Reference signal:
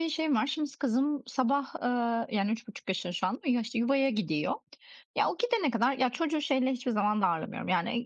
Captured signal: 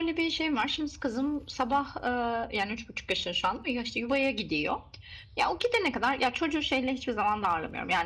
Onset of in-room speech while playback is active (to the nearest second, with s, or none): none